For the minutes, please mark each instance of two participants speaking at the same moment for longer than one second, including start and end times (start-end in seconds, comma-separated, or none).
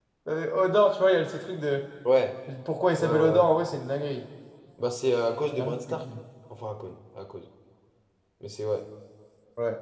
none